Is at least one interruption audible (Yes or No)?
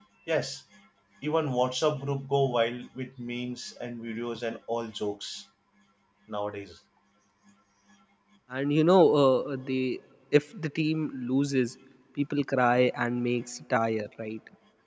No